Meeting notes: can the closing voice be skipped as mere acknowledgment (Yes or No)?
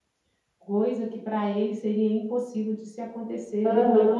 No